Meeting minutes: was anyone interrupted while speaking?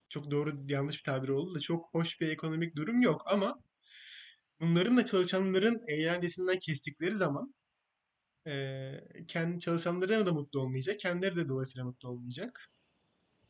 No

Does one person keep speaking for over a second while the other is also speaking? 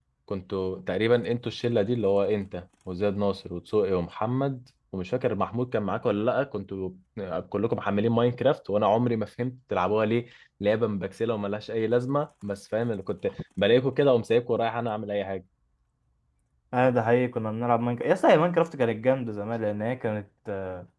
No

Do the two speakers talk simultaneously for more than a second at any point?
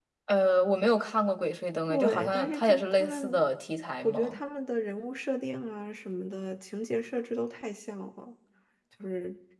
Yes, from 1.9 s

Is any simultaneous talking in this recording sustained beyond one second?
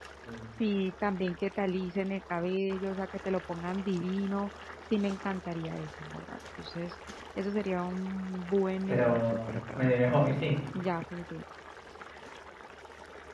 Yes, from 8.9 s

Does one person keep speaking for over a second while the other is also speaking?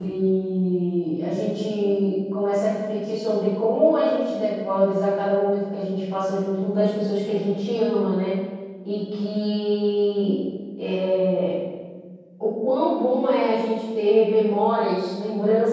No

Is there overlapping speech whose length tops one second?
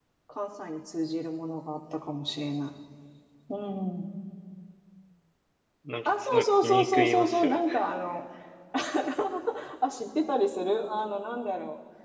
Yes, from 6.0 s

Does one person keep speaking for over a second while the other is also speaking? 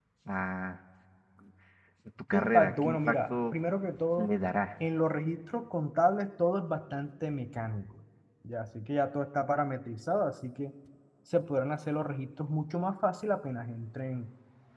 Yes, from 2.3 s

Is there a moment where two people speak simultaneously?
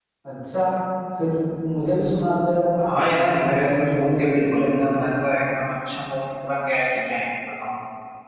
Yes, from 2.8 s

